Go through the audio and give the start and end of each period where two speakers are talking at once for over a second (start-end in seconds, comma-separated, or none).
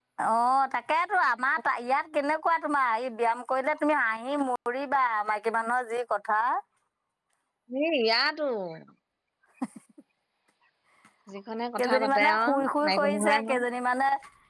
11.8-13.6